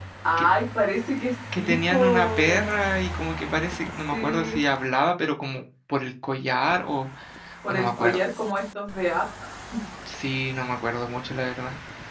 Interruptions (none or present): present